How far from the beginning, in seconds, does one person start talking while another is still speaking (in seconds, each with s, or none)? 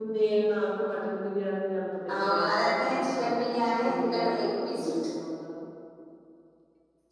2.1 s